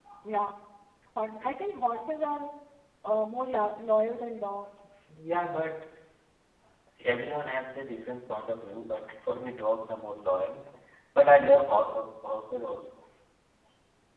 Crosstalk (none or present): none